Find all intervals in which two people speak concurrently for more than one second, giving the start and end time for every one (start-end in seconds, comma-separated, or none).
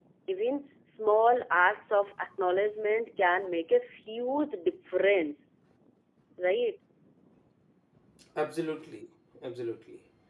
none